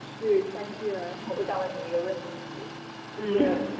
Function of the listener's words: listening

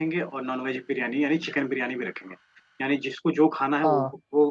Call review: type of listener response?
listening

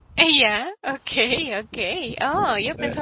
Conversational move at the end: taking over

